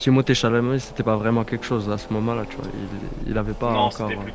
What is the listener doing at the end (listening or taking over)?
taking over